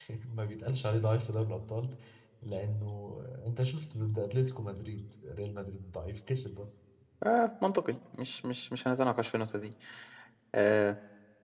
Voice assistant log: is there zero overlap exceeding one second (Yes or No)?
Yes